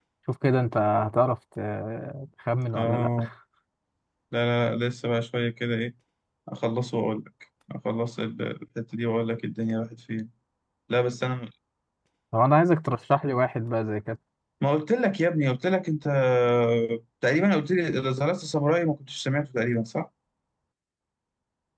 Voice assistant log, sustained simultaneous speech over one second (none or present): none